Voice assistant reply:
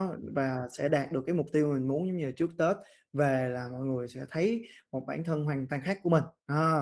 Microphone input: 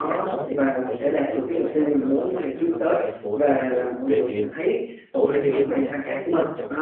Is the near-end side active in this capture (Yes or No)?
Yes